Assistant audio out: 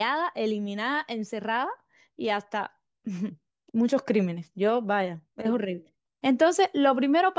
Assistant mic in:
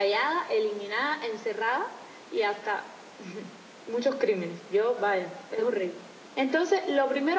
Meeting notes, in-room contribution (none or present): none